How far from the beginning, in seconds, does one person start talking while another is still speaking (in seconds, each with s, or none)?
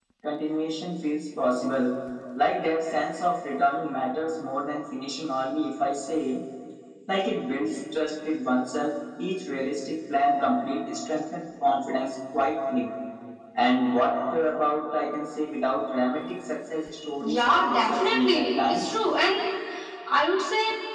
17.2 s